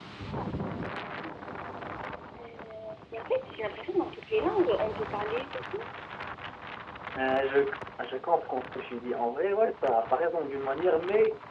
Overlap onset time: none

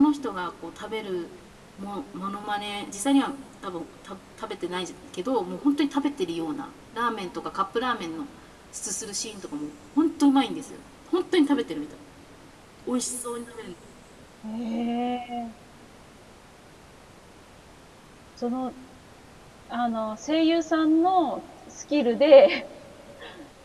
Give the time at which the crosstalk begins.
none

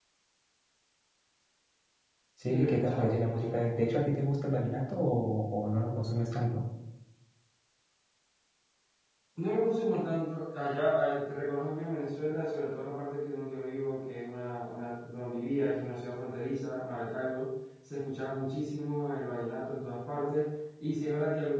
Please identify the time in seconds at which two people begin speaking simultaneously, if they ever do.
2.5 s

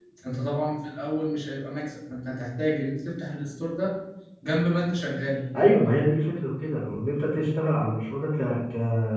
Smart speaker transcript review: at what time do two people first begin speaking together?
none

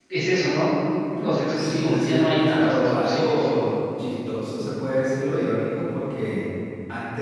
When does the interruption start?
1.6 s

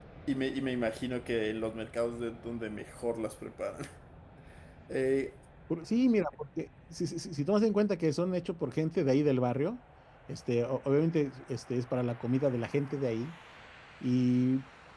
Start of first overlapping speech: none

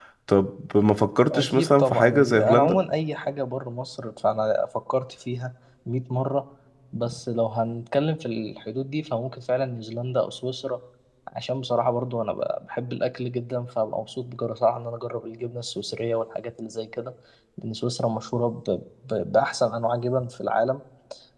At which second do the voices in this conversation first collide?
1.3 s

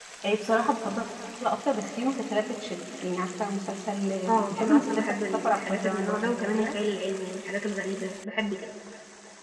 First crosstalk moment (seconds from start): 4.3 s

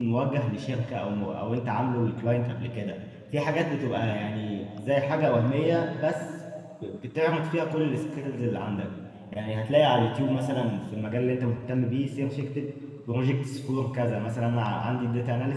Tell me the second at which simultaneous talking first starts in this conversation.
none

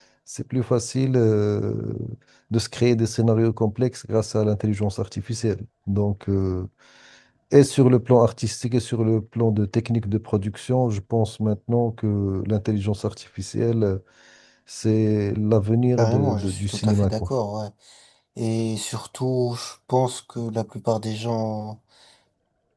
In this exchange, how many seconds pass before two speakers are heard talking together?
16.0 s

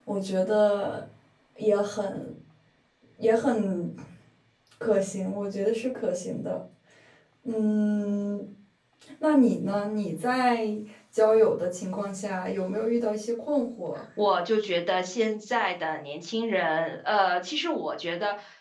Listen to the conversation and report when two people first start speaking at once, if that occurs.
none

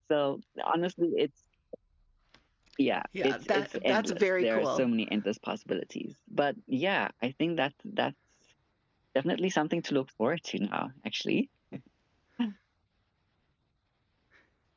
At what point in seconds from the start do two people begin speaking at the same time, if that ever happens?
3.2 s

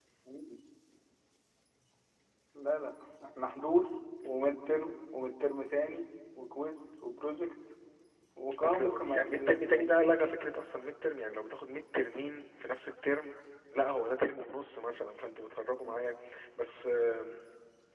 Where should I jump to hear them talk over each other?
8.6 s

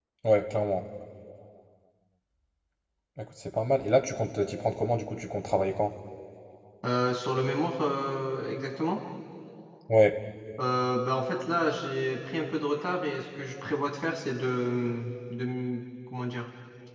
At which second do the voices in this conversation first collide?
none

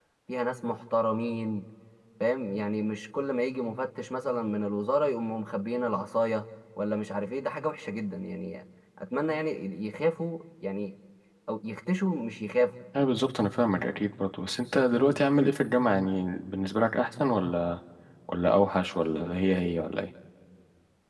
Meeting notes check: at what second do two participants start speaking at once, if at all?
none

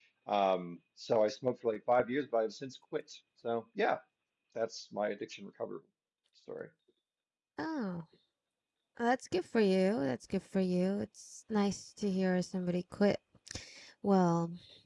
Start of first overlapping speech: none

